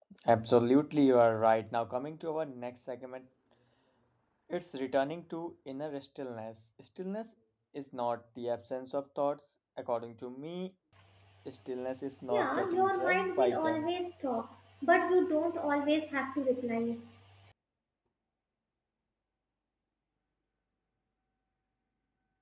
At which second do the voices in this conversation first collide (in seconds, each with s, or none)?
12.3 s